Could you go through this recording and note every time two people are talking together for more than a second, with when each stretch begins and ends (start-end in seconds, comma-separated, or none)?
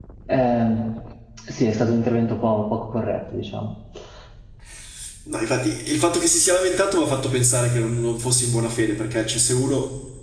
none